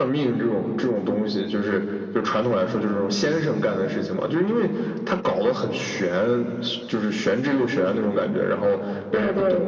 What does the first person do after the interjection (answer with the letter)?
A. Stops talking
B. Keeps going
B